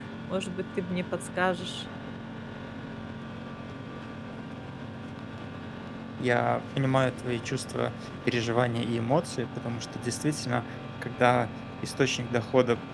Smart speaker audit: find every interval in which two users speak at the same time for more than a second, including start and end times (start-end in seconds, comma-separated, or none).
none